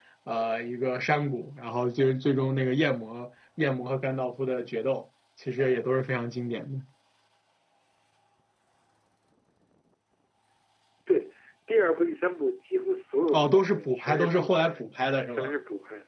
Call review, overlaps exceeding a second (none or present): present